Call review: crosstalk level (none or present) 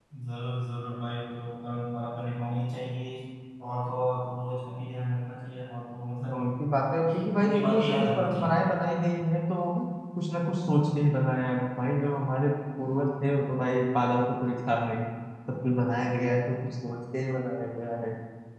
present